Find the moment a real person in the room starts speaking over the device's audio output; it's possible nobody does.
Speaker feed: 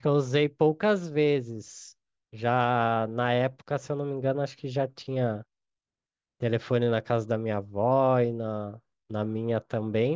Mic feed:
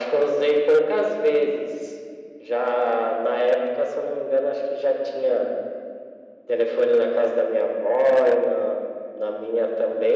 none

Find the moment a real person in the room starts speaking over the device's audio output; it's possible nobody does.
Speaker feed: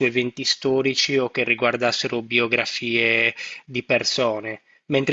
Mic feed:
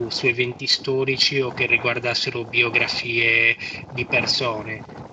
none

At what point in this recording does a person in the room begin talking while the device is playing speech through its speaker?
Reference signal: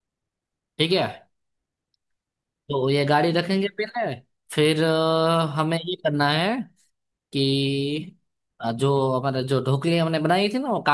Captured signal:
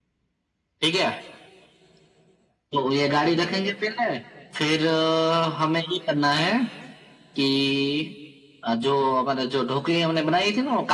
none

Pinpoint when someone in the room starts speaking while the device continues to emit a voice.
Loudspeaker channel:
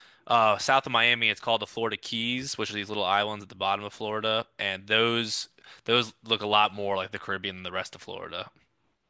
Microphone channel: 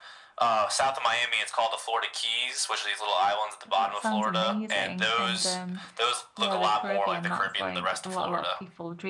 3.7 s

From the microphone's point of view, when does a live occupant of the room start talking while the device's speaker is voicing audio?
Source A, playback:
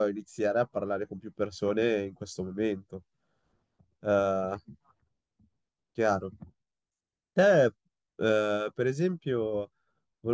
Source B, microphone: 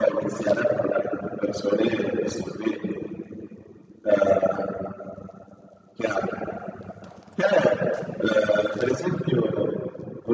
none

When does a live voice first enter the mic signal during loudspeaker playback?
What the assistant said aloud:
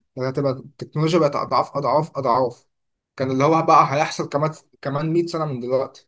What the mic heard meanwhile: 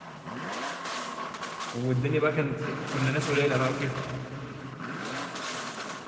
1.7 s

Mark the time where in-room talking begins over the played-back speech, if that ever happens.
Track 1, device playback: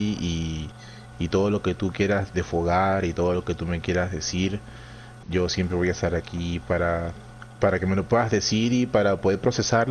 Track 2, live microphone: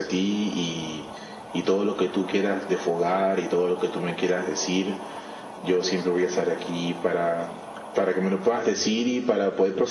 none

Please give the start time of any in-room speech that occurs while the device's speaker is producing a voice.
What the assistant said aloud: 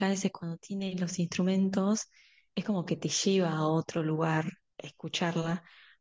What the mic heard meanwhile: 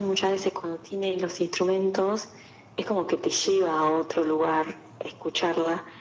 none

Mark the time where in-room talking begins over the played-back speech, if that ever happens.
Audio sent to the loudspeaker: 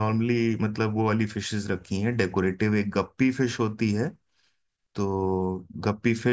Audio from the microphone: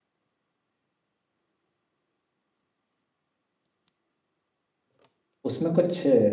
5.4 s

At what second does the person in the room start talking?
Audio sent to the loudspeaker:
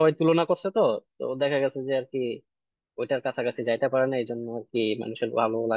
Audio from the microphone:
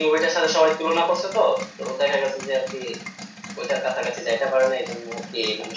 none

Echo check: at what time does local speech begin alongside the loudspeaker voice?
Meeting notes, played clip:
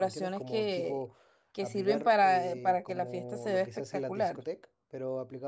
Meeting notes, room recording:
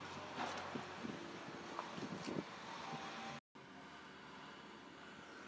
none

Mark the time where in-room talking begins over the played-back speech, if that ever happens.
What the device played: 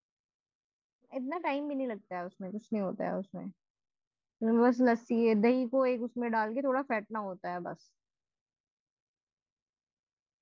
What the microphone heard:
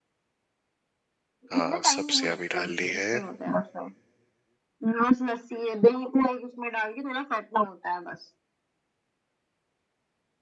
1.5 s

